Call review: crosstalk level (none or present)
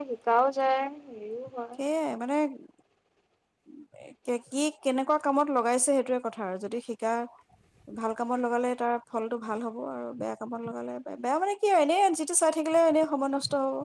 none